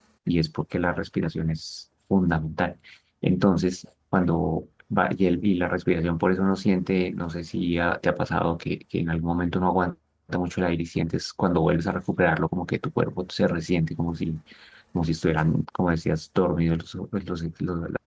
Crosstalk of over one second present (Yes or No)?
No